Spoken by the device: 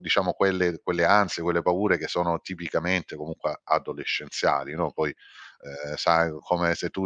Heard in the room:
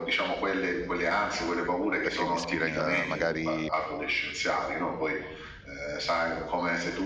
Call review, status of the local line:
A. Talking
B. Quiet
A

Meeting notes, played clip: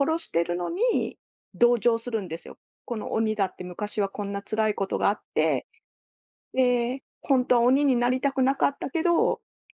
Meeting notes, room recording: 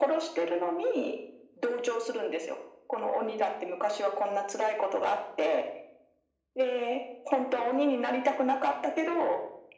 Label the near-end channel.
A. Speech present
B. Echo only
B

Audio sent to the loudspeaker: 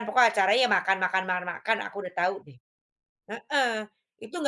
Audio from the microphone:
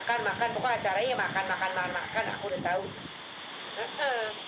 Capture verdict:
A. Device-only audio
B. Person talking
A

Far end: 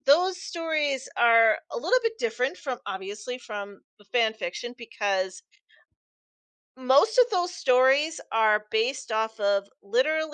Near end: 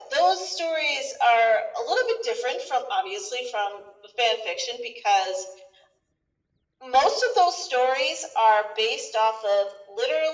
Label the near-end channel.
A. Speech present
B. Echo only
B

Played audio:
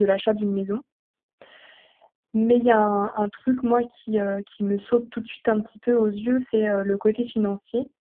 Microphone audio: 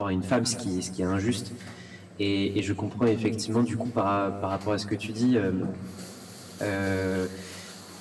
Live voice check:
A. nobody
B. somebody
B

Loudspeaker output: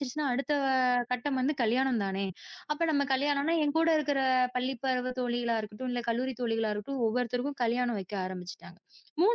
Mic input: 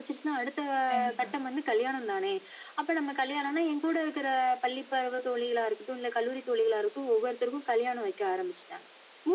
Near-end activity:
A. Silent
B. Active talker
B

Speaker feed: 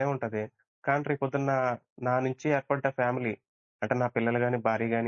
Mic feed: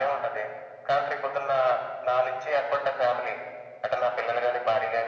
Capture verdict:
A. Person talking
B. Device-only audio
B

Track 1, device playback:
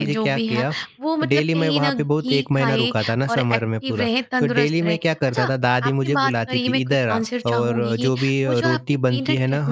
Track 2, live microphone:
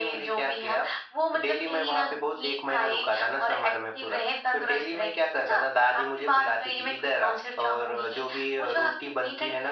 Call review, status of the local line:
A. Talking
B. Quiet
B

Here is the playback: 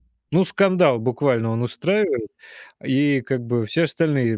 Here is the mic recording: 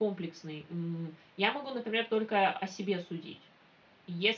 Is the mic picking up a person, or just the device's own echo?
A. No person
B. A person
B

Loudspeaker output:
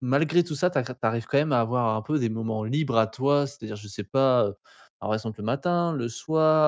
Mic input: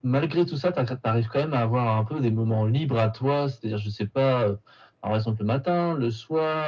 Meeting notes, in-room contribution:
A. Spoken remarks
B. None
B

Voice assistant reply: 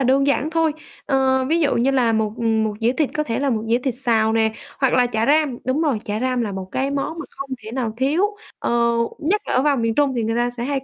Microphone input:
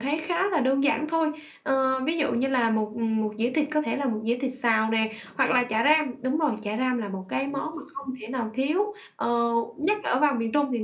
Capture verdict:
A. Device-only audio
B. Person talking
A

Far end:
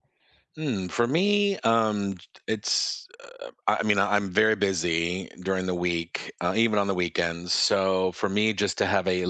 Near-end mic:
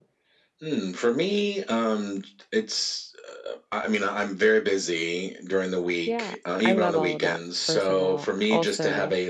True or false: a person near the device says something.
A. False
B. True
B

